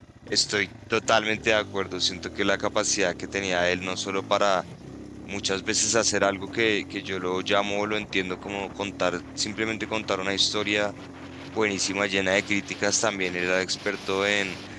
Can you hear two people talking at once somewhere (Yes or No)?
No